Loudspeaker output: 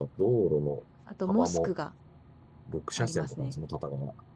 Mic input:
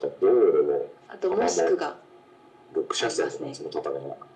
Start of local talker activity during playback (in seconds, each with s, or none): none